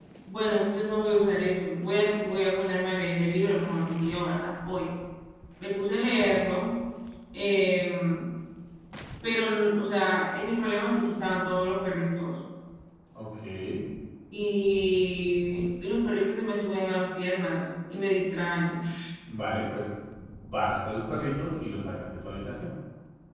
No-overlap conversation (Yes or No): Yes